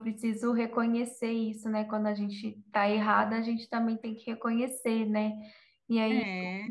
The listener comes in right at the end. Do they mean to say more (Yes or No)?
No